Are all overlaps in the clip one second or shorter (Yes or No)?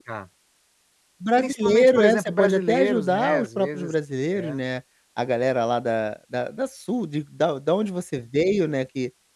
No